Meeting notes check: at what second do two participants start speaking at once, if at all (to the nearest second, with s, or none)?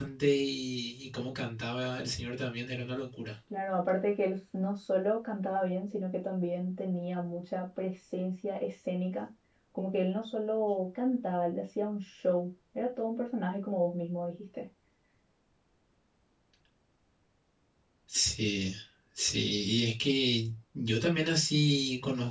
none